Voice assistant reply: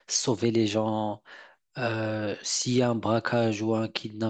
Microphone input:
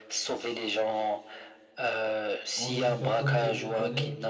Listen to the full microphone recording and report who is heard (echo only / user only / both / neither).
both